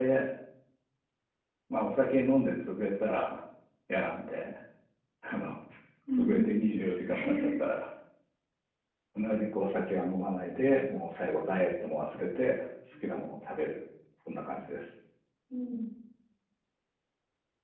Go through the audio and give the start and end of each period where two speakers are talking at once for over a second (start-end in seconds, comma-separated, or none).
none